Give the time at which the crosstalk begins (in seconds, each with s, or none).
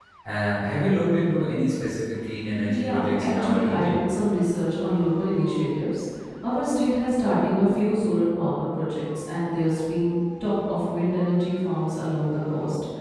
2.7 s